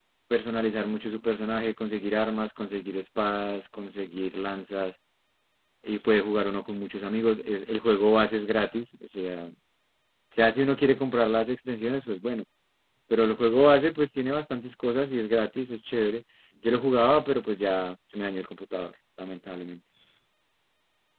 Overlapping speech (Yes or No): No